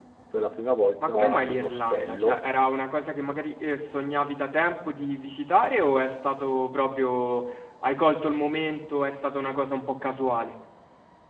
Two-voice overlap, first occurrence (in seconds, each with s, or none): 1.1 s